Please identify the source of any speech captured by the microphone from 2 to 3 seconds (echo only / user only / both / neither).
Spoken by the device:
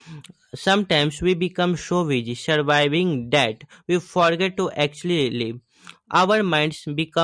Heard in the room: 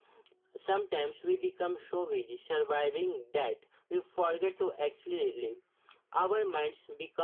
echo only